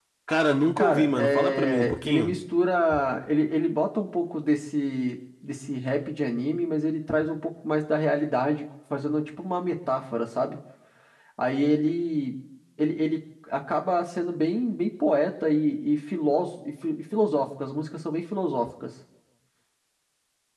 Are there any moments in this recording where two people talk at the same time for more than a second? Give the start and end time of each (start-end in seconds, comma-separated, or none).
0.8-2.3